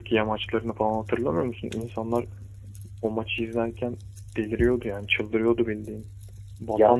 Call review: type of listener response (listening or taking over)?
listening